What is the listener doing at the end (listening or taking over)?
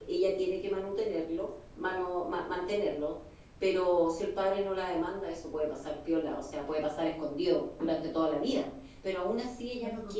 listening